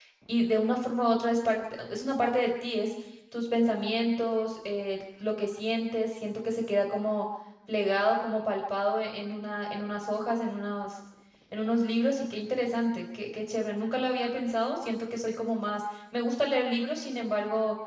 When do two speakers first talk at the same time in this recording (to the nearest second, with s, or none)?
none